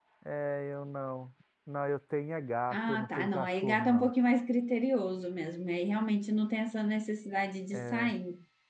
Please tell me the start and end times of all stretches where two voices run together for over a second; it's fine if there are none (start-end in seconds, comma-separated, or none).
2.7-4.1